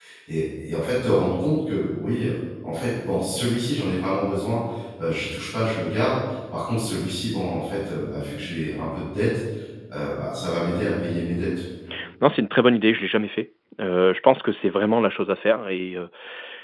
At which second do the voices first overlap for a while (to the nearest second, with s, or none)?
none